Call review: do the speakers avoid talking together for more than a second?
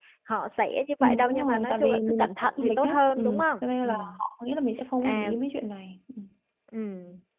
No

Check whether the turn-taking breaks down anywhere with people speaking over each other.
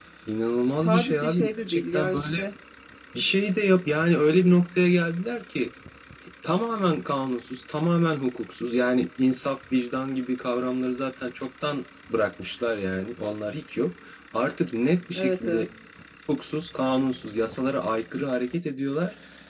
Yes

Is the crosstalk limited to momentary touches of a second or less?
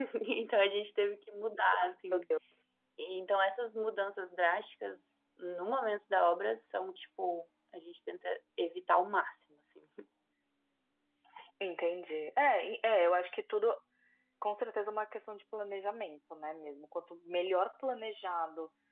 Yes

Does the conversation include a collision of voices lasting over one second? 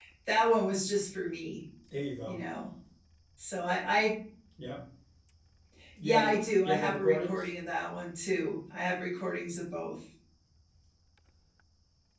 Yes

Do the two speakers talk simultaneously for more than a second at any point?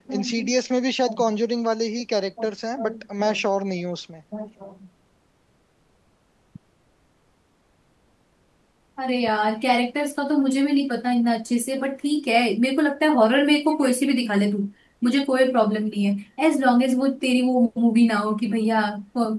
No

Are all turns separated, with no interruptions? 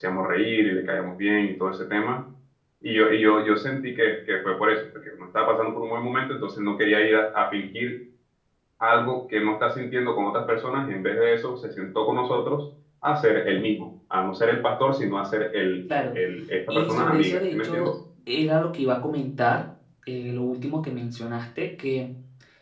No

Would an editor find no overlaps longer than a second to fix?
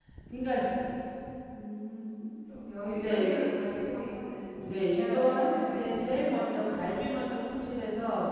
No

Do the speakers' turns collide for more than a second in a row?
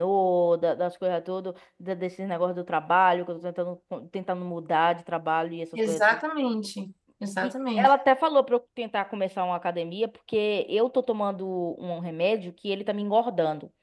No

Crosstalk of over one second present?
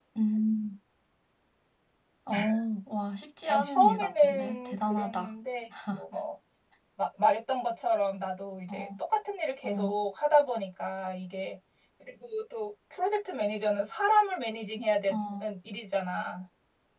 Yes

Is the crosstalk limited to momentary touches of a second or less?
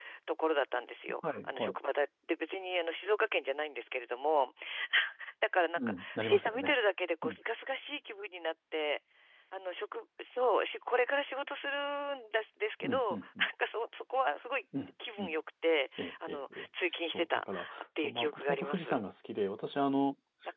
No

